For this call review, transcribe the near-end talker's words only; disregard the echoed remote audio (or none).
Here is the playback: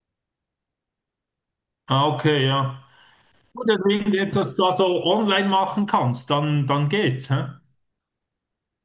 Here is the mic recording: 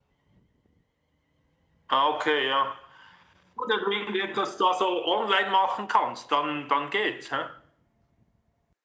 none